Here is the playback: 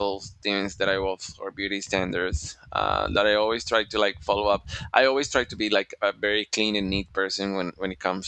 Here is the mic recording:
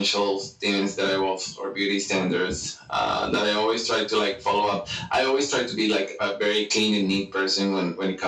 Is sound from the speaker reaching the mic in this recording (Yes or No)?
Yes